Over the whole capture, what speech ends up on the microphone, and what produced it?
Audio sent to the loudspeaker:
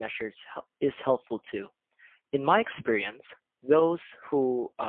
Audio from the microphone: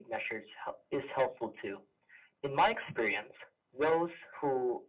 echo only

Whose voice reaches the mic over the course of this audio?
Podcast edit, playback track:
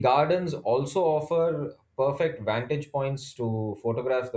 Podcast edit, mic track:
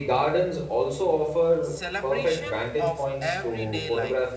both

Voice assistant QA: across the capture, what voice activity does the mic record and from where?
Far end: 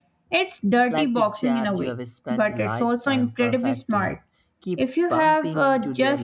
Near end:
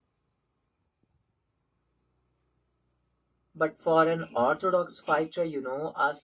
user only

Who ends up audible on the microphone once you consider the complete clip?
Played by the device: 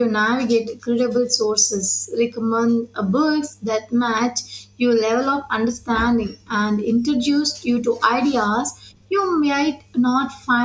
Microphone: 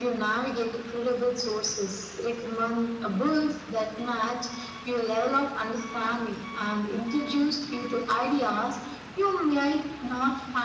echo only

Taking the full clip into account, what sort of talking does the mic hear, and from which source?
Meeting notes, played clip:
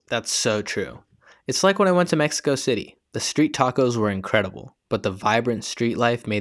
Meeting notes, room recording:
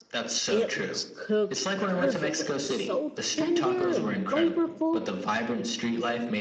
both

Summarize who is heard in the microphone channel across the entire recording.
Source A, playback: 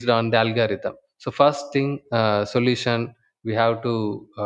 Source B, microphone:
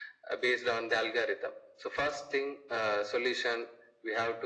echo only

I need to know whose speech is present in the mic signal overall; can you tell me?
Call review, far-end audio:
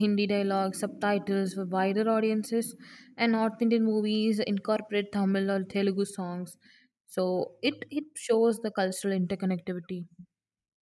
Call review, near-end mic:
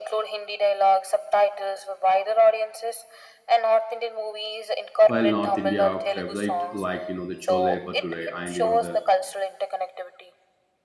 both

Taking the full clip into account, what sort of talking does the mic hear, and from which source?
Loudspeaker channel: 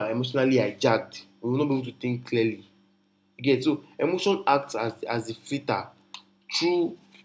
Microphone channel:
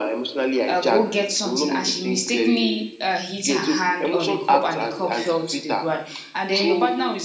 both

